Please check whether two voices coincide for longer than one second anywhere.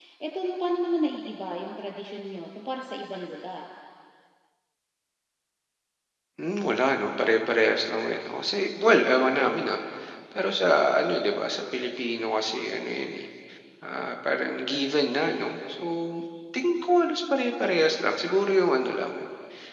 No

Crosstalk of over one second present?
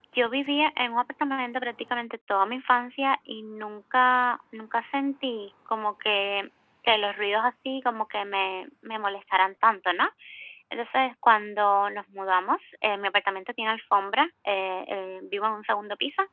No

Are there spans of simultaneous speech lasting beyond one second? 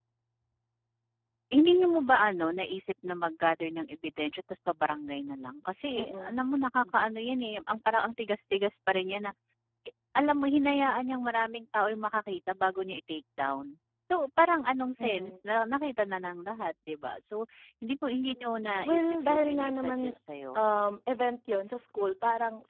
Yes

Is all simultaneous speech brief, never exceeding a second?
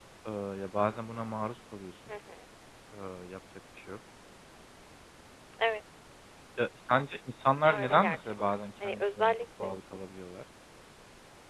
No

